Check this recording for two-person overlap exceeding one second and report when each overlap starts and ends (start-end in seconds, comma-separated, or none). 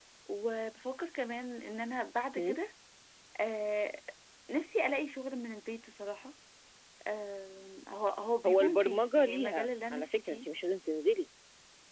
8.5-10.4